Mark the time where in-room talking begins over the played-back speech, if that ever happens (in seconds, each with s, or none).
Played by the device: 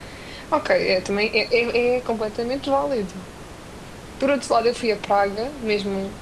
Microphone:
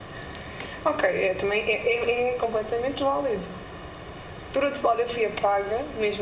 none